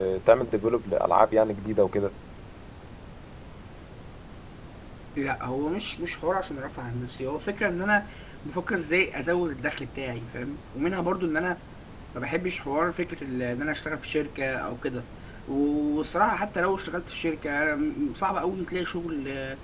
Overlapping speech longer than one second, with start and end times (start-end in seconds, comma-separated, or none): none